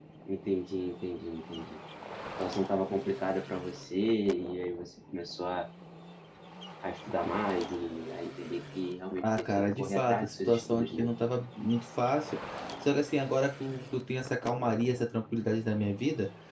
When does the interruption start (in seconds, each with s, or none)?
9.2 s